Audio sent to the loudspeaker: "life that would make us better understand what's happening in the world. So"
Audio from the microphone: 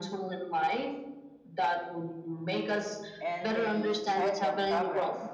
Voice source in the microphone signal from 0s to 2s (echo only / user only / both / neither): echo only